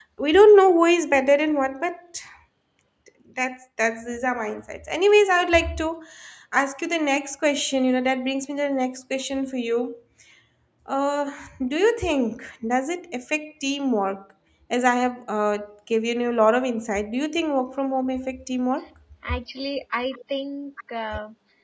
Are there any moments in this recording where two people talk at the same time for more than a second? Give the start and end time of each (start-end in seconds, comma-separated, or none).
none